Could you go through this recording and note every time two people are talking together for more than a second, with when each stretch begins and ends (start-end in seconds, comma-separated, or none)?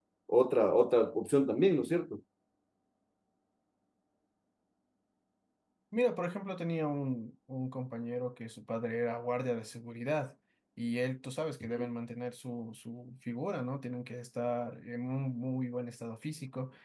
none